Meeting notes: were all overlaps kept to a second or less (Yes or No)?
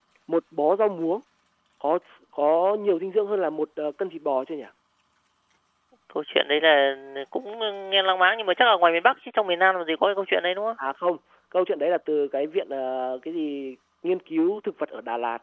Yes